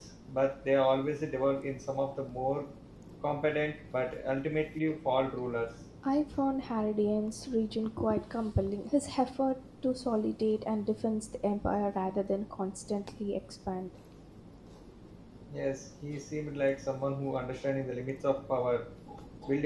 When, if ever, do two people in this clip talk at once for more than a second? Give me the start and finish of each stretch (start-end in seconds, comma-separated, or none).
none